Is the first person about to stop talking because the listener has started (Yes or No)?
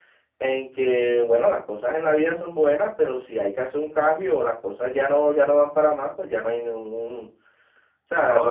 Yes